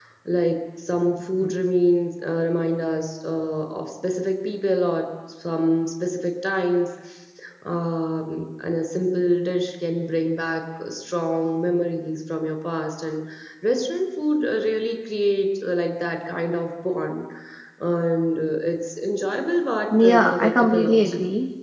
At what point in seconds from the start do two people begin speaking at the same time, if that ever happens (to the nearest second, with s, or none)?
20 s